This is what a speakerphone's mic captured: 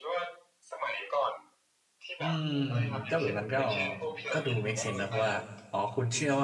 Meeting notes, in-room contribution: present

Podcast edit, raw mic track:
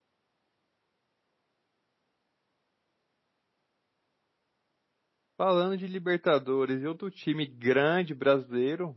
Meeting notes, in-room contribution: present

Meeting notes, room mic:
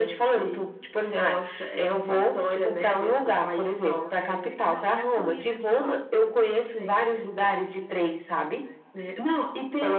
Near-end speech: present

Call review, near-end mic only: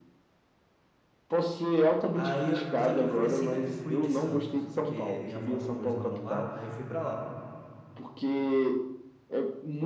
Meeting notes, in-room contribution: present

